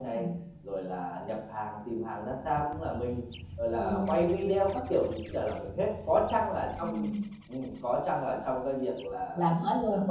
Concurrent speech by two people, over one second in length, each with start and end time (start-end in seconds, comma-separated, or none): none